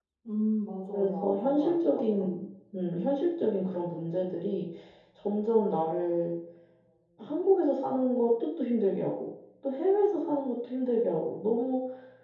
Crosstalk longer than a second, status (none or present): present